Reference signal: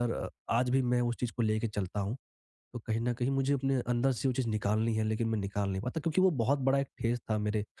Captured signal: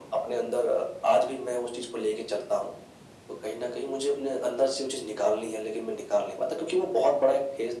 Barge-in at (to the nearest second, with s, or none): none